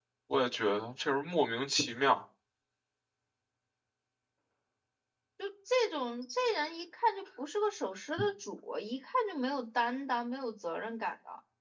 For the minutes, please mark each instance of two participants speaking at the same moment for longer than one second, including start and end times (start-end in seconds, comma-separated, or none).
none